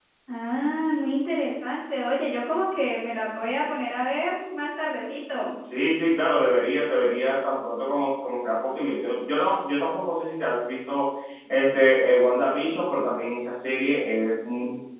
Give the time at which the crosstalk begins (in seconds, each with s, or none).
none